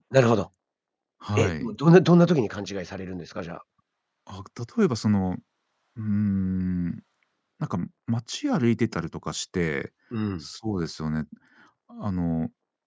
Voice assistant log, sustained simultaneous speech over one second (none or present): none